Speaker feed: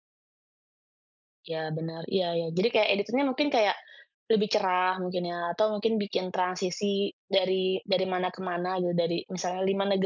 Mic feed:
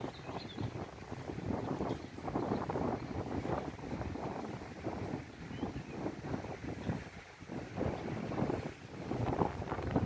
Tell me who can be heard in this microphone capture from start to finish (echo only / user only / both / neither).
neither